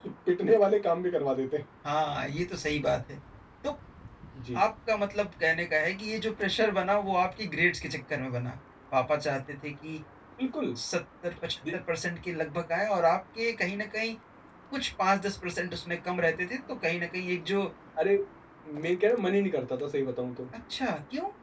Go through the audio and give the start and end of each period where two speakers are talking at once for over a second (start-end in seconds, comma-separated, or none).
none